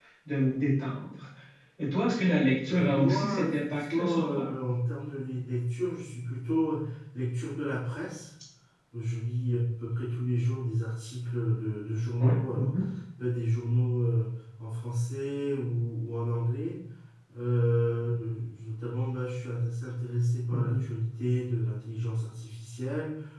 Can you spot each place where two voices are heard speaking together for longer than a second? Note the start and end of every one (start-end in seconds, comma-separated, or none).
2.7-4.5